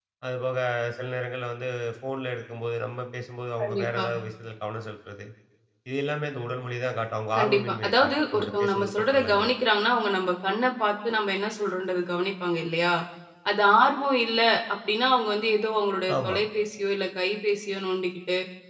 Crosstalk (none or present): present